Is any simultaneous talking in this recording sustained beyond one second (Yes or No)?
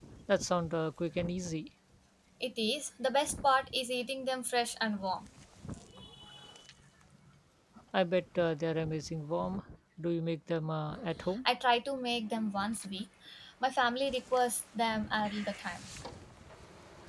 No